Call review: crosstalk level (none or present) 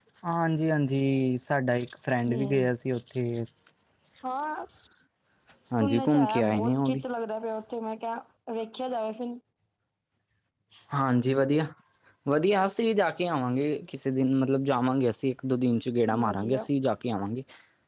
present